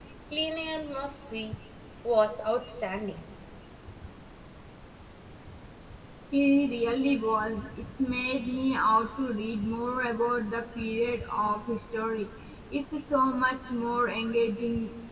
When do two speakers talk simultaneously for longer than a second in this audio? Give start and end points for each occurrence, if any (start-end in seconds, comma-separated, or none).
none